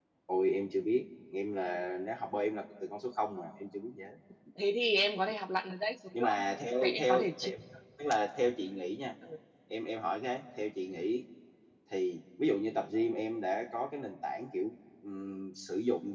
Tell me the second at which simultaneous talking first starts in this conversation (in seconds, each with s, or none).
6.1 s